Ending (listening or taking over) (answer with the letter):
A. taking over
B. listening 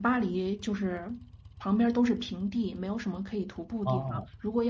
B